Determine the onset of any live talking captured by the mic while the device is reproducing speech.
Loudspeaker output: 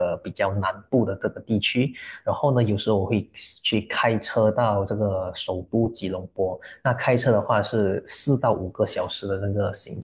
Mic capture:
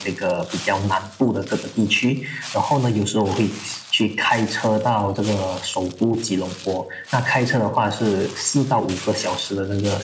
none

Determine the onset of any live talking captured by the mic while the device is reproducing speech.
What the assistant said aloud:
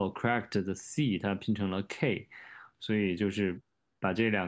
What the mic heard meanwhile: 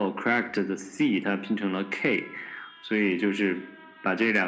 none

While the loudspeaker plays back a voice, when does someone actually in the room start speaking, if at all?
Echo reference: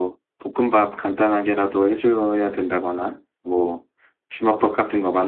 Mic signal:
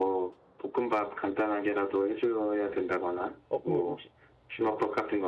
3.5 s

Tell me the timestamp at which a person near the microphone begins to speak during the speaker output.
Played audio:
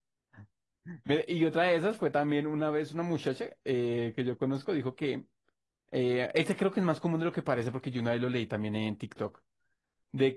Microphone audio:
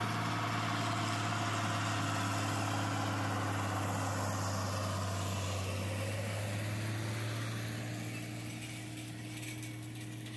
none

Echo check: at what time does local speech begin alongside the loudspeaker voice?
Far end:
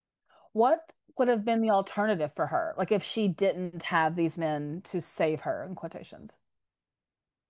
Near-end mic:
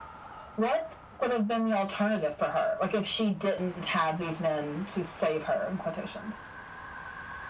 none

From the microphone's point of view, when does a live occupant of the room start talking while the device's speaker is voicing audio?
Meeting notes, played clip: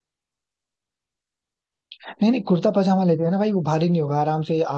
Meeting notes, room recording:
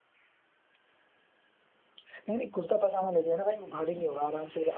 none

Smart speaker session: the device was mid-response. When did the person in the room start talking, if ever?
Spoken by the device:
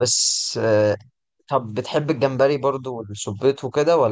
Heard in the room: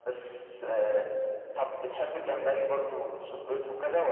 2.2 s

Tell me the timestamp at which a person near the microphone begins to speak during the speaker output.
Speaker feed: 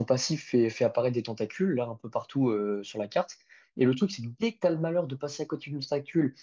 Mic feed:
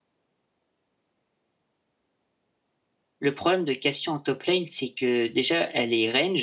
3.2 s

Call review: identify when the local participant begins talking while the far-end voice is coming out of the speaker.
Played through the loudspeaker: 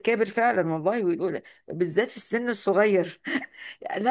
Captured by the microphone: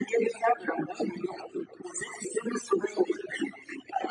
none

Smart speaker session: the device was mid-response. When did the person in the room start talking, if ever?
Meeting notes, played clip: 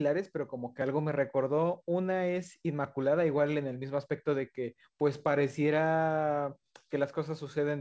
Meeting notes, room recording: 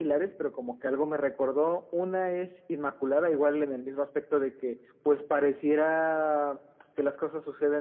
none

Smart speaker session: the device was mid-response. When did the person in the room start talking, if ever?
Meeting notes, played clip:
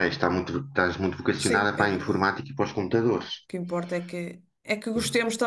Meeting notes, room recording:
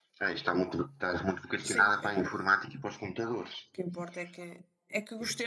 none

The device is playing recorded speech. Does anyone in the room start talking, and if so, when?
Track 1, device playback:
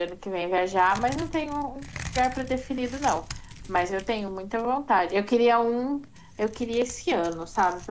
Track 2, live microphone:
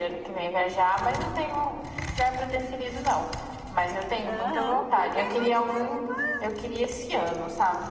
4.3 s

